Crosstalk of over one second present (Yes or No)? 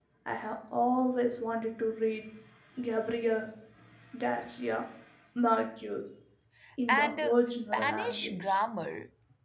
Yes